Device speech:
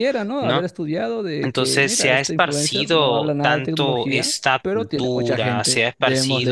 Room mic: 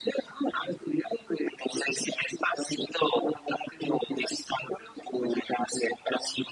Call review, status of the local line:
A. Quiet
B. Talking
A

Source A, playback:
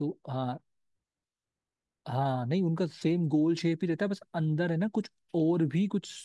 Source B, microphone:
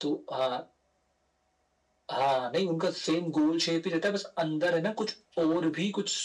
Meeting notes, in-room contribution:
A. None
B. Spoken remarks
A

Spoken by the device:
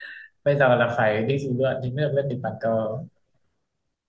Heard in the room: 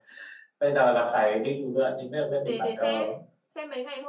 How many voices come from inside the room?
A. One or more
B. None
A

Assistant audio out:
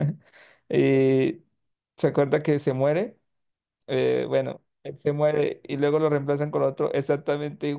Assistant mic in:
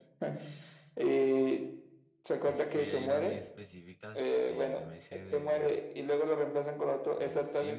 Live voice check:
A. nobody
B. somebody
B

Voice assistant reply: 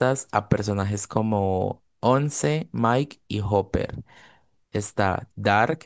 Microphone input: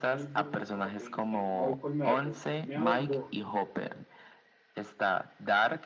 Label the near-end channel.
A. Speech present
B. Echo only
A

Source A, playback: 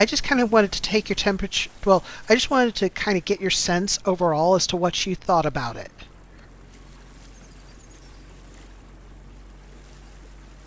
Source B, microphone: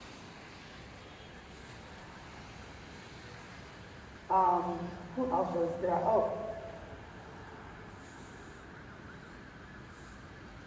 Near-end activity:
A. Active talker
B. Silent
A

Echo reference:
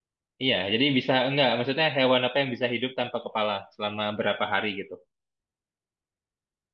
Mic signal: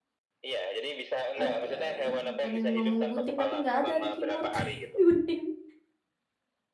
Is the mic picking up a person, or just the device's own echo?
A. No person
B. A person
B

